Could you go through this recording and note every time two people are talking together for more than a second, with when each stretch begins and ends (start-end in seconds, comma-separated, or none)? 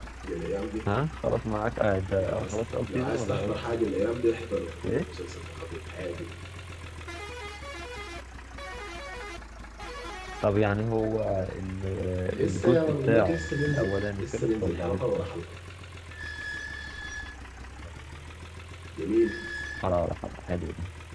2.2-3.8, 12.3-15.2